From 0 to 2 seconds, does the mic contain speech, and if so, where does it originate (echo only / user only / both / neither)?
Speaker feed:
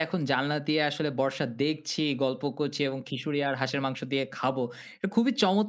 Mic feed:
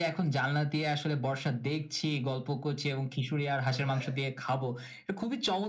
echo only